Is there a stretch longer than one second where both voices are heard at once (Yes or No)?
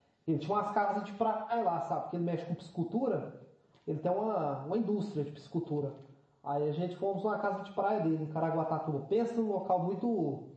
No